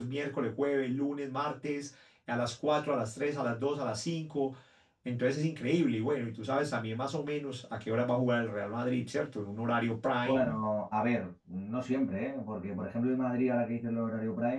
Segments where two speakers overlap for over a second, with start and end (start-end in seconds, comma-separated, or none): none